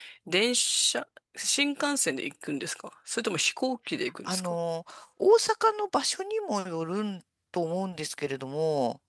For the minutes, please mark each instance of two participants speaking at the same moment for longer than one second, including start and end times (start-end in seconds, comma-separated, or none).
none